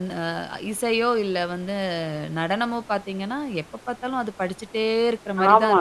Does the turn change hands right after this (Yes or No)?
Yes